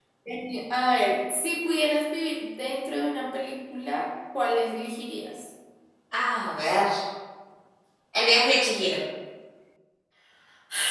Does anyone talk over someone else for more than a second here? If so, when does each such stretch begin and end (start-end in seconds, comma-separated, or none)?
none